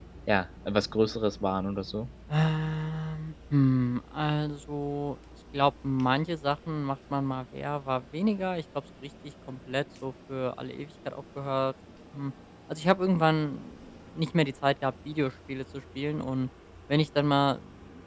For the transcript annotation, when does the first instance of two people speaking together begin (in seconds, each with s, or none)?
none